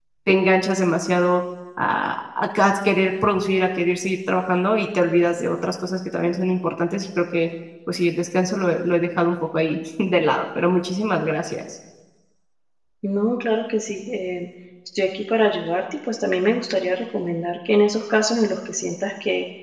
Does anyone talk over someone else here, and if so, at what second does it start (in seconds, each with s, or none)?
none